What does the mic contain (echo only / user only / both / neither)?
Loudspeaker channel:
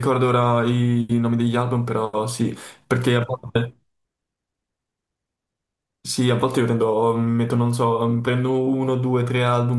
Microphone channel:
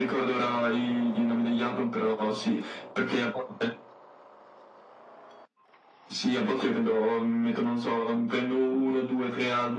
echo only